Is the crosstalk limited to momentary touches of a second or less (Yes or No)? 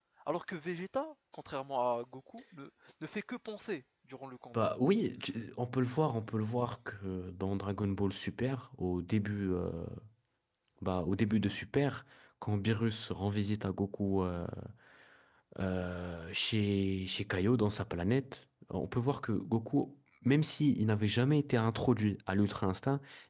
Yes